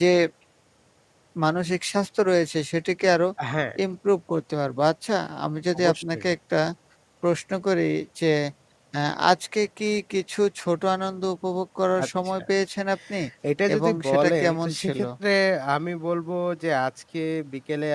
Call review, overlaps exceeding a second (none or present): present